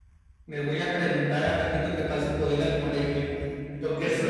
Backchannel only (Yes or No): Yes